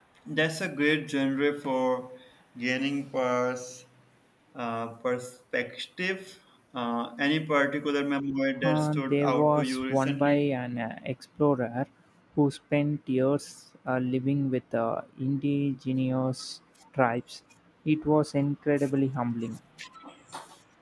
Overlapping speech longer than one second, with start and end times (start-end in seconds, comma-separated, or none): 8.6-10.5